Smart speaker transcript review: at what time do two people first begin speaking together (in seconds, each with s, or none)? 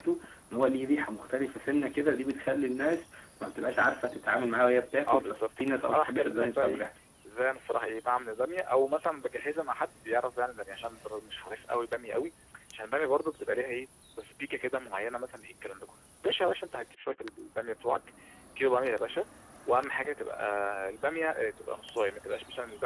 5.0 s